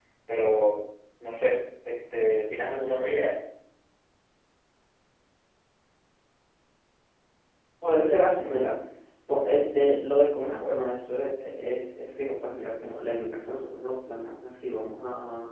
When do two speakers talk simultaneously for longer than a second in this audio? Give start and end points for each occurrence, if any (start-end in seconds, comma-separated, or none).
none